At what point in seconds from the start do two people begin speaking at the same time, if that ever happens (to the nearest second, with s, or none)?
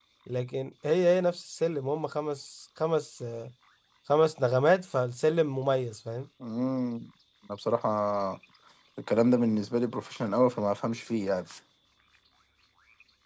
none